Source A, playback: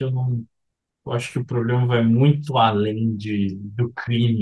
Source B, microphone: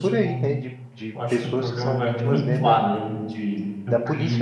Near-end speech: present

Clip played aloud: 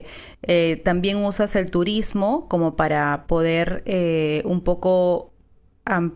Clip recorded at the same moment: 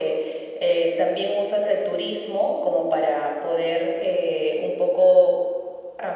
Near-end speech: none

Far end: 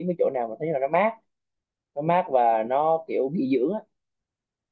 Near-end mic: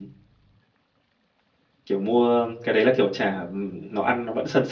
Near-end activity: present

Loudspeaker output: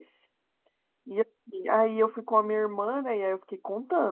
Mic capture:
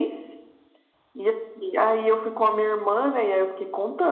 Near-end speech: none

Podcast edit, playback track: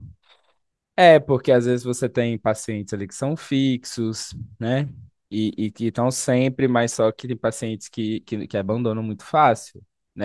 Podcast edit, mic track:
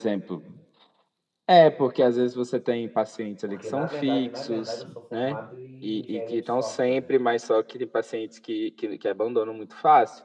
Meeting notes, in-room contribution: present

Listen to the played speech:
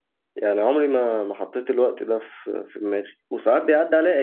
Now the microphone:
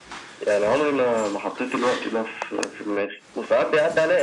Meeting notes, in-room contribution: none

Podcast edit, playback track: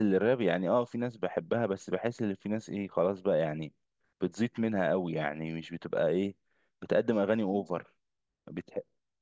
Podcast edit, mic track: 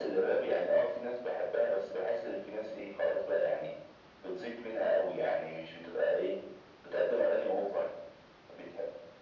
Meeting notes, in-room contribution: none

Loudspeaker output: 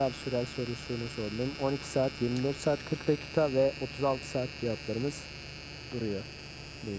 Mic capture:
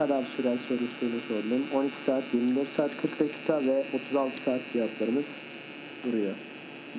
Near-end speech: none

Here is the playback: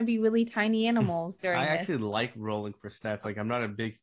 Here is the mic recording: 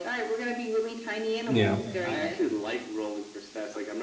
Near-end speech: present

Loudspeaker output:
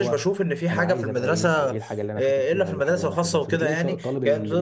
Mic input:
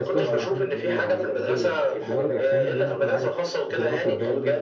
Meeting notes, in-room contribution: present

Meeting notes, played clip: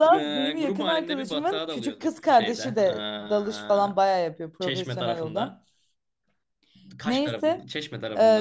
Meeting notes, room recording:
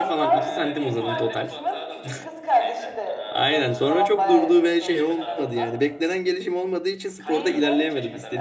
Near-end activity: present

